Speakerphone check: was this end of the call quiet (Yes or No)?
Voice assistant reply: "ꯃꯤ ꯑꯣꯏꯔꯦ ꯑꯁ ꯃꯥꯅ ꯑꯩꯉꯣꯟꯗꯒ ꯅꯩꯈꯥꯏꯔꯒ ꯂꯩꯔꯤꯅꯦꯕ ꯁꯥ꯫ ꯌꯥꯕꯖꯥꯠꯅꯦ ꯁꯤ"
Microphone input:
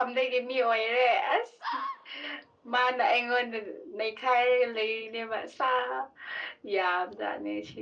Yes